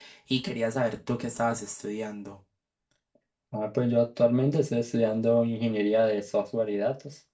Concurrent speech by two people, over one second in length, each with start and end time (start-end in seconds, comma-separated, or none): none